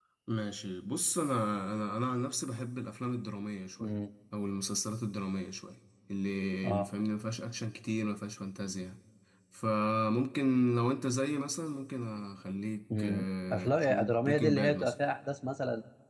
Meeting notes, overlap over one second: present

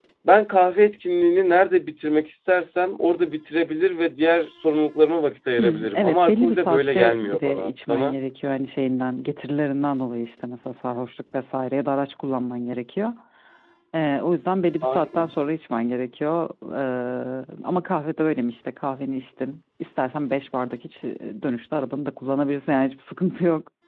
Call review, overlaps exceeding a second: present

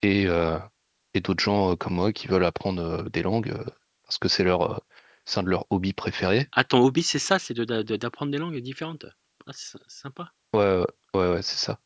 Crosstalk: none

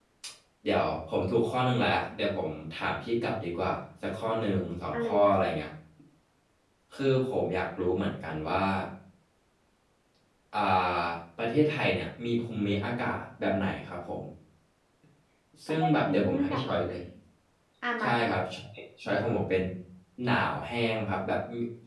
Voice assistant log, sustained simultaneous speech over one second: present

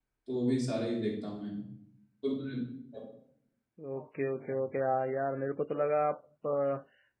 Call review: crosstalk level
none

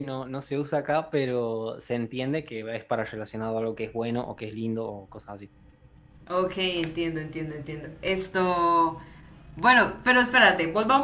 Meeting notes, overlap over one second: none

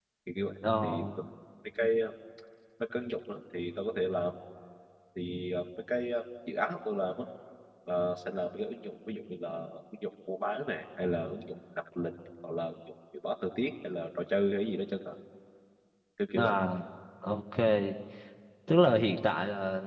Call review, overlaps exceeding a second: none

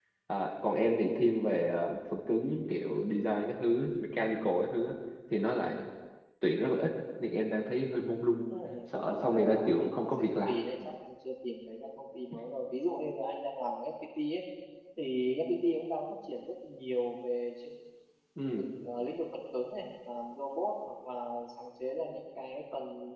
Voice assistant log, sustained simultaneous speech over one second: present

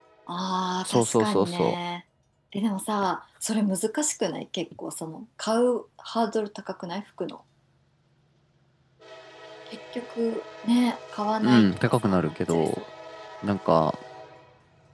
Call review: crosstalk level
present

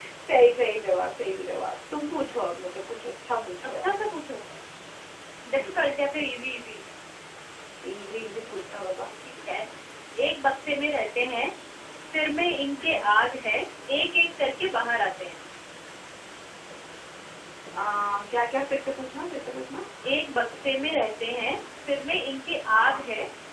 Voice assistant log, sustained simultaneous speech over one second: none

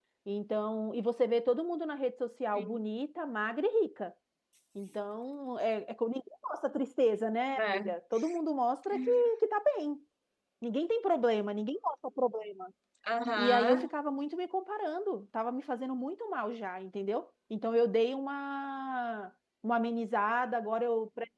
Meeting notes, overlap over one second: none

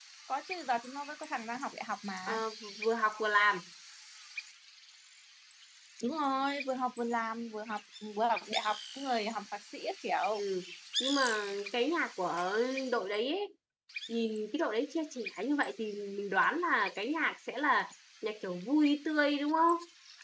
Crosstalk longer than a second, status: none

